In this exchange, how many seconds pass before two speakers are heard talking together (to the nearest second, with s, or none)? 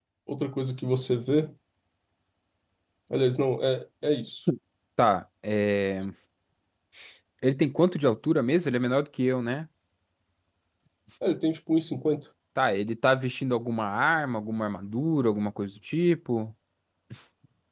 none